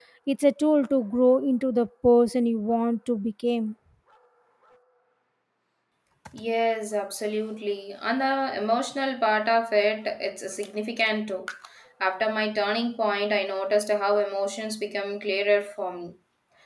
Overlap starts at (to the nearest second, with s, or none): none